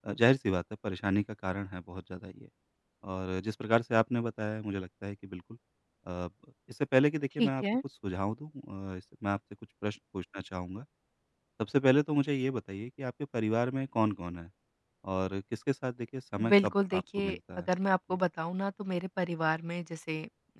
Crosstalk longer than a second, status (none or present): present